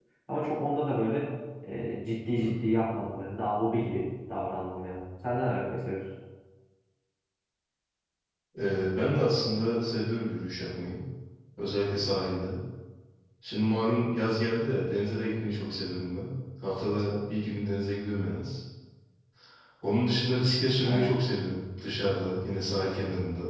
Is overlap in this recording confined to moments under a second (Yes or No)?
Yes